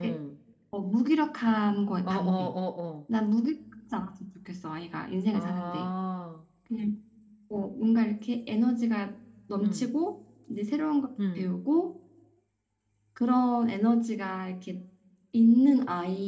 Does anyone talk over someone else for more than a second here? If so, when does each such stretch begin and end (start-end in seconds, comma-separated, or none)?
none